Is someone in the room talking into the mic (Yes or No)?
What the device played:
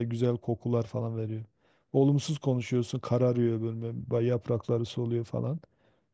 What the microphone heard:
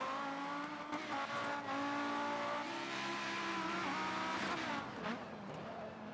No